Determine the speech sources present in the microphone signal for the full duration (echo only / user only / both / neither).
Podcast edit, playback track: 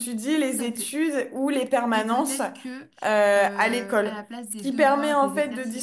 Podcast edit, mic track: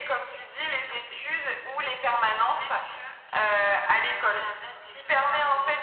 echo only